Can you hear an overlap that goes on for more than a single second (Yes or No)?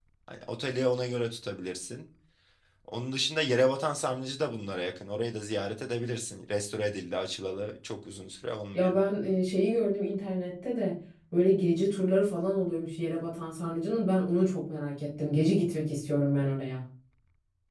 No